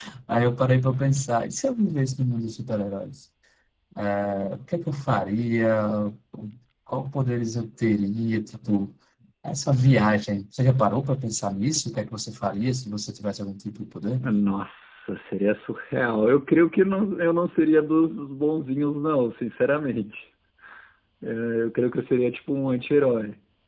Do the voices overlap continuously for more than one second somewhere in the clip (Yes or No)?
No